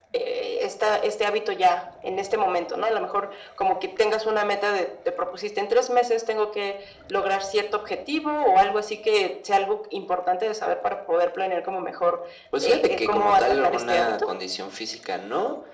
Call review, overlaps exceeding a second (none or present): present